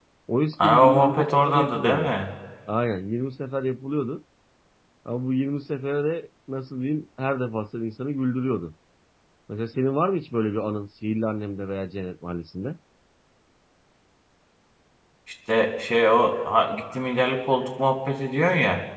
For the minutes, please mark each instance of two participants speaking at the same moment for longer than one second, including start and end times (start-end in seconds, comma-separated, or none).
0.6-2.1